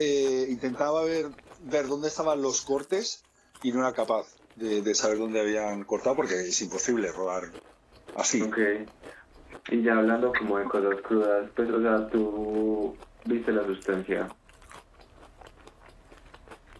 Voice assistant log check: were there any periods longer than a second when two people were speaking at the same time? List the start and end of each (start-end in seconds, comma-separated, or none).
none